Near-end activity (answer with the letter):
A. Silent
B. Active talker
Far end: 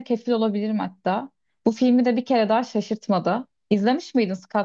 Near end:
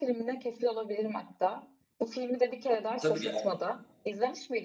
B